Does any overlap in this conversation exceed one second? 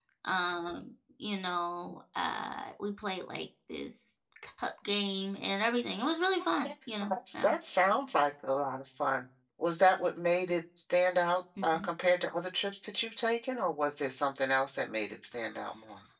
No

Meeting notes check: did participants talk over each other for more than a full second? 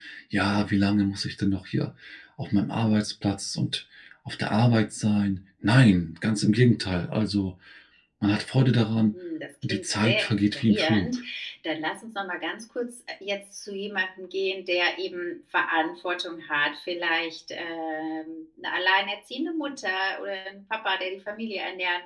Yes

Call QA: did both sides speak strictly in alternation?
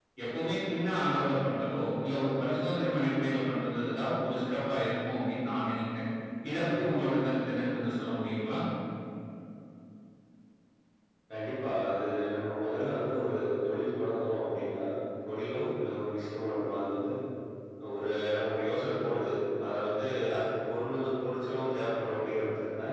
Yes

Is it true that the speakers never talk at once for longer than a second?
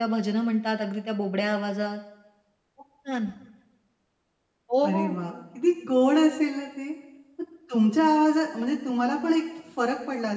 Yes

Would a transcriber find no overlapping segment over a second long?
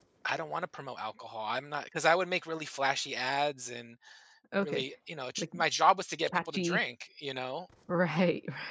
Yes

